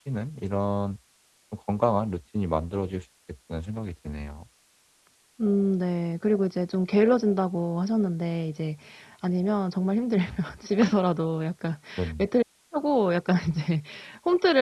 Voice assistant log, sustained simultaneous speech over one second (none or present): none